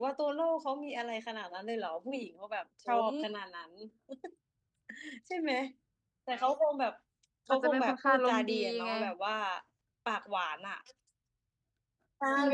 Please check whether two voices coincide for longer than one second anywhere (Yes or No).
Yes